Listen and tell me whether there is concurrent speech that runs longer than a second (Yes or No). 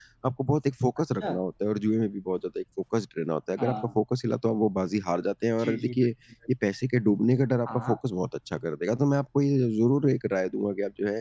No